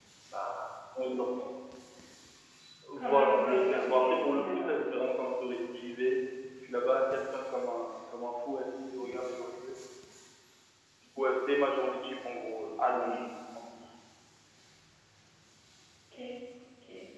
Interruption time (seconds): 3 s

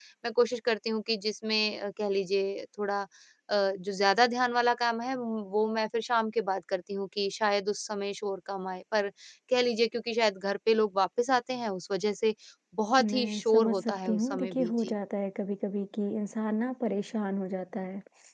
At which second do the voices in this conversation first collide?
13 s

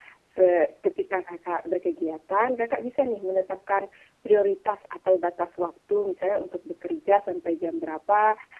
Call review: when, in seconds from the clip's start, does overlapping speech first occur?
none

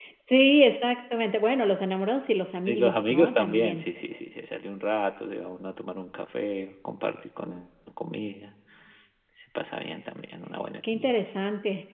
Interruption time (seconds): 3 s

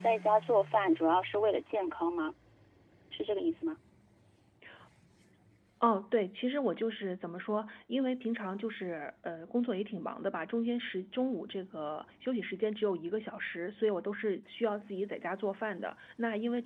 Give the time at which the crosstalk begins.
none

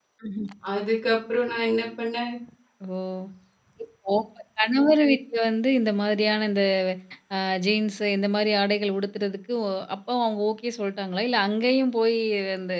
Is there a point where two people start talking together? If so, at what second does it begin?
none

